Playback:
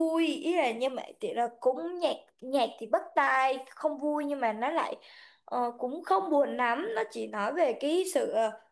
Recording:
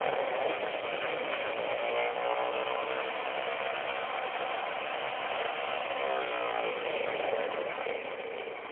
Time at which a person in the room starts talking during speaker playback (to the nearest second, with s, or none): none